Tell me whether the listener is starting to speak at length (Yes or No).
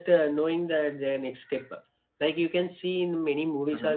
No